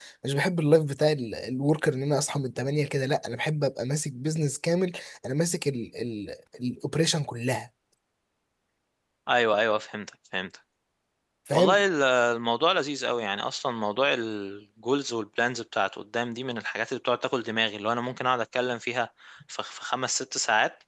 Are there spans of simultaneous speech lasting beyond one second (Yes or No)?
No